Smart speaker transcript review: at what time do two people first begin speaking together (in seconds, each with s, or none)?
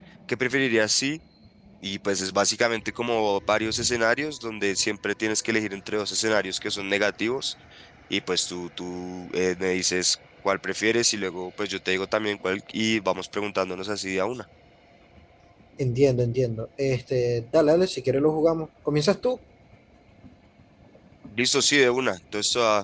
none